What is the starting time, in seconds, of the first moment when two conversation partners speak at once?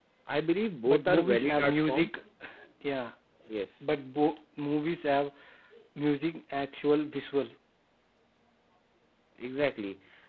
0.9 s

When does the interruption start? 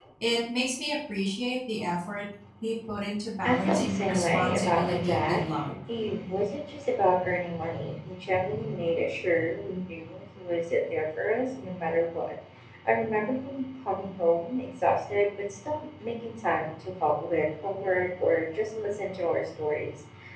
3.4 s

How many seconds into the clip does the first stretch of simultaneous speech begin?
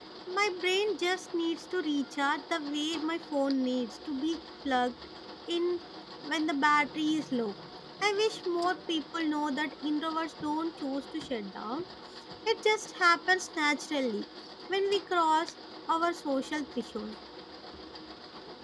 none

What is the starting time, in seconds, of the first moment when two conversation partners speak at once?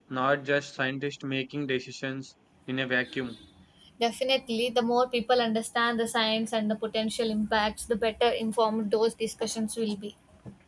none

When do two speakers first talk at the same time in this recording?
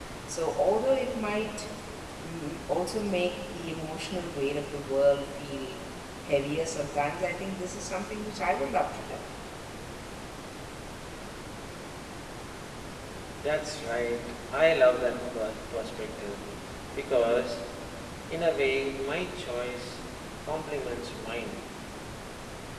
none

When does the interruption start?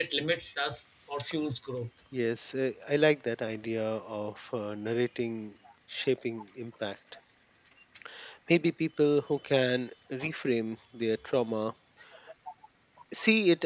none

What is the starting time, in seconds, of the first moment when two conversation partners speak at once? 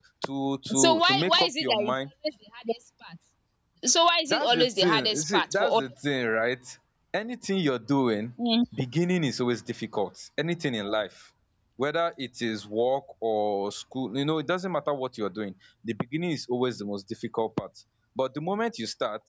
0.7 s

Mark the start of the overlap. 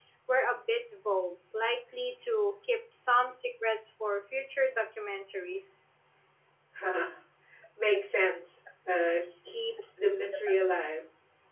none

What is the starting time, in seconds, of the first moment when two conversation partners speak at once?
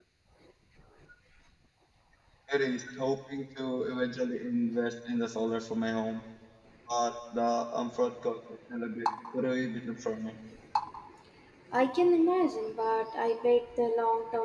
none

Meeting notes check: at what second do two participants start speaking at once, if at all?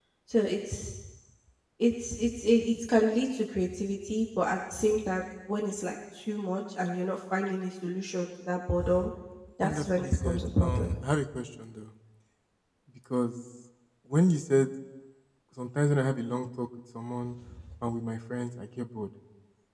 9.6 s

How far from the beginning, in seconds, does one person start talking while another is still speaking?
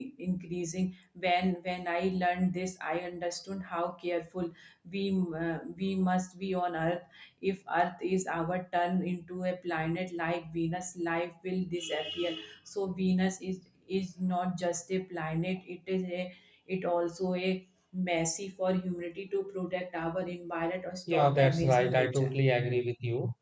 21.1 s

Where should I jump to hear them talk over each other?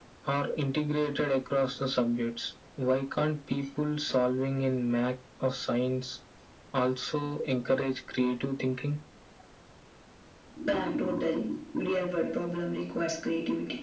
none

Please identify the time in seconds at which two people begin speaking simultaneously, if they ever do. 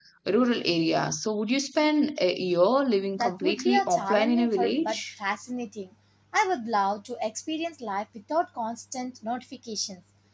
3.1 s

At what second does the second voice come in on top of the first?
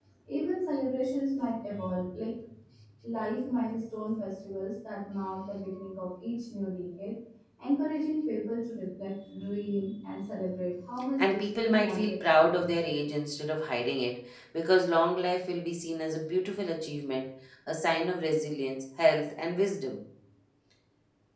11.2 s

